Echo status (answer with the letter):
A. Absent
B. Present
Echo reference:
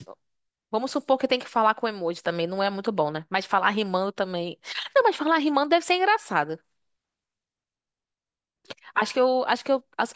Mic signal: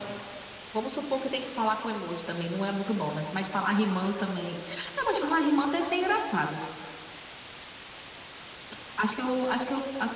B